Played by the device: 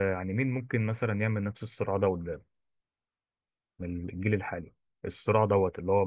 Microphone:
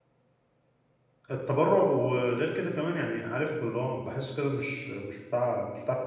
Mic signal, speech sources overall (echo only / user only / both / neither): user only